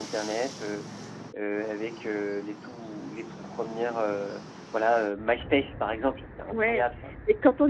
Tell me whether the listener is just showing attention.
No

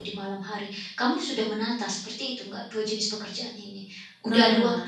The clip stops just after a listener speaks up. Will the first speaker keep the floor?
No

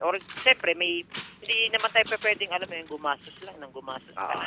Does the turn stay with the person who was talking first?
No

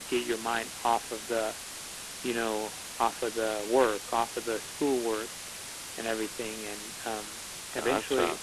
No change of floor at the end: Yes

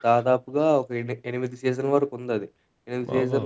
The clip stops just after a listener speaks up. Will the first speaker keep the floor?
Yes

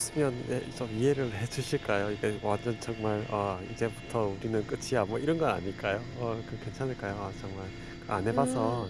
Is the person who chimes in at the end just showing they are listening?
No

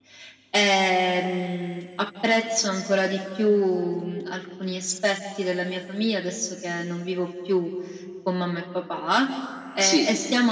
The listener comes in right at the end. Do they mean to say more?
No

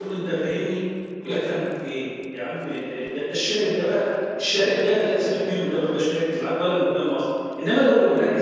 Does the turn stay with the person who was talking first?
Yes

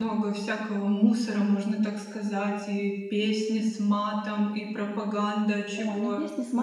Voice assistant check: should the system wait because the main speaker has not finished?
No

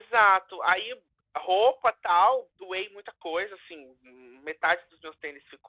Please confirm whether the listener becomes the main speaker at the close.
No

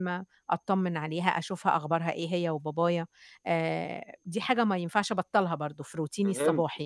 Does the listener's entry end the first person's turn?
Yes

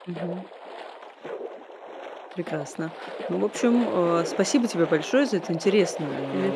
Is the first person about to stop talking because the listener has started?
No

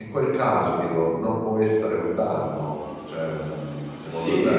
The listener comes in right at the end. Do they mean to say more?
Yes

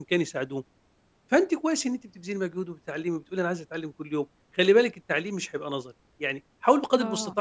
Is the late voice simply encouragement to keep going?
Yes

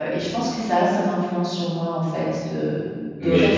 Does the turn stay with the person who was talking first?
Yes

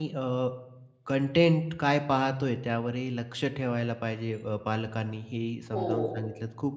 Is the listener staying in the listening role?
Yes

